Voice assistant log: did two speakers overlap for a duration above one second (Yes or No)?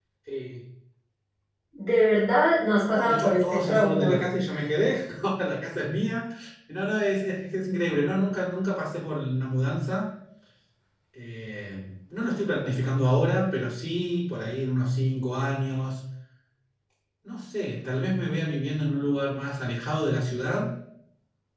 Yes